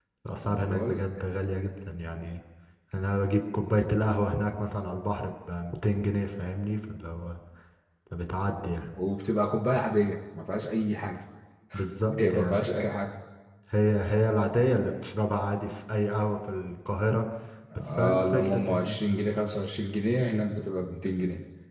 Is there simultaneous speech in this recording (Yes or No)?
Yes